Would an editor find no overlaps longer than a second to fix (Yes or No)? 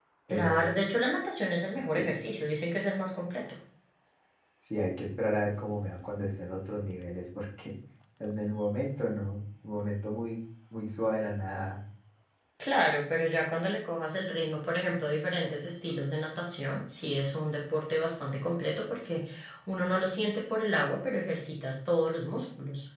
Yes